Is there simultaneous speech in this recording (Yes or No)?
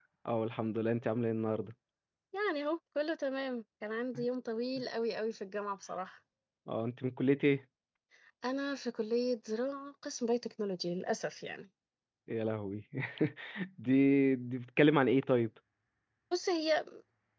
No